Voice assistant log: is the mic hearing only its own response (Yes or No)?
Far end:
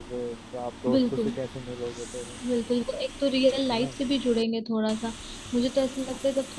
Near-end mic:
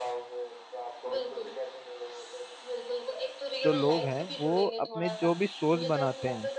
No